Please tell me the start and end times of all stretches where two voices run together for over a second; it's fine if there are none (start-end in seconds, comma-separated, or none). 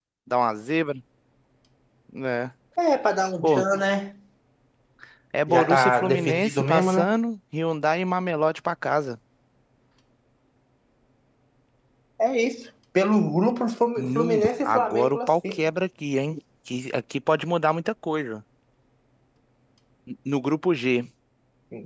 5.5-7.1, 14.0-15.6